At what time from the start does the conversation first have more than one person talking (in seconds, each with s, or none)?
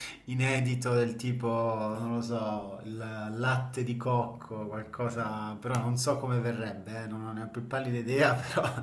none